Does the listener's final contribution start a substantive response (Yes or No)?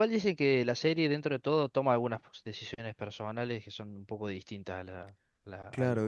Yes